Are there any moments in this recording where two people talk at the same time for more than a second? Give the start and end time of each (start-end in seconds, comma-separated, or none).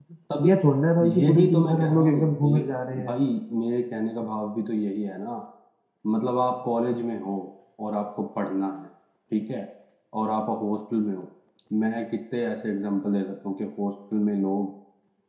1.2-2.6